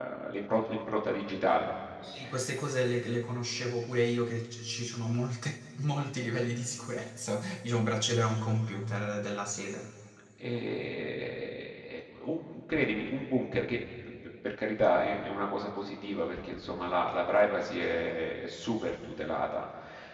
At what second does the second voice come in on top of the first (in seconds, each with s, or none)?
none